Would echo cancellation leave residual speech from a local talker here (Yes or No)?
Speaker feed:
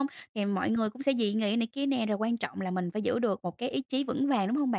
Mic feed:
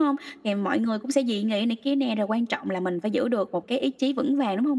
No